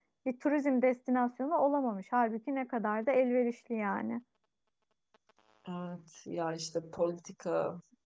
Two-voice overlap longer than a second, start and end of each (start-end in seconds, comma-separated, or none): none